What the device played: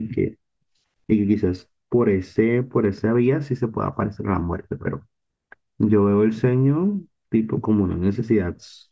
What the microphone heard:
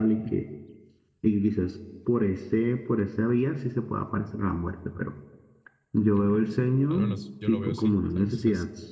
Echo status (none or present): present